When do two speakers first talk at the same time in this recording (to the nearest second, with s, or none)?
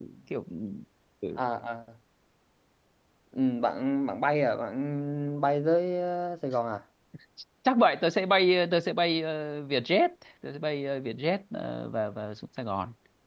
none